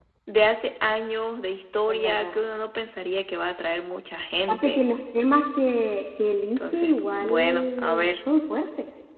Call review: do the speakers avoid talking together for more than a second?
No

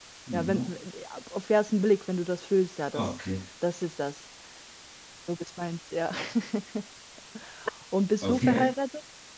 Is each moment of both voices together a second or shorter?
Yes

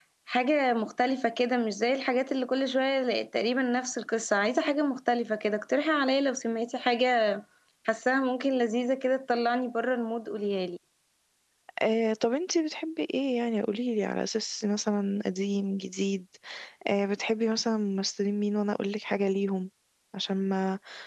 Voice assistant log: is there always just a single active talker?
Yes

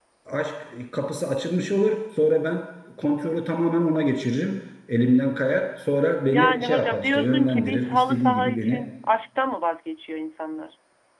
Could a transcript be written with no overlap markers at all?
No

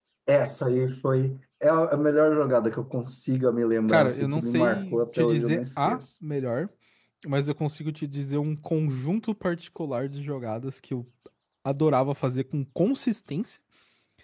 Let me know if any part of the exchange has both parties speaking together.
Yes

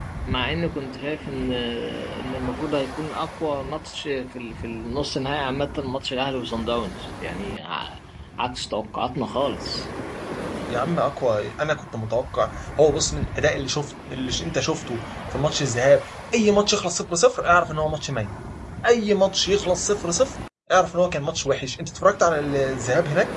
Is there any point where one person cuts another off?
No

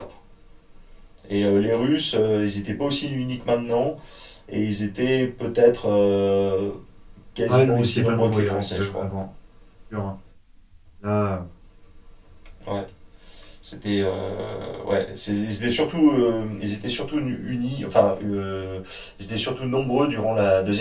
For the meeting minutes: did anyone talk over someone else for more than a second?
Yes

